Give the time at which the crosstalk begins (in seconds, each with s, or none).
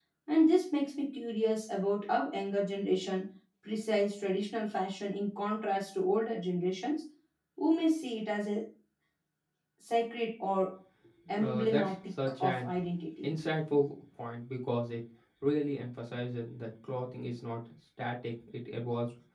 11.4 s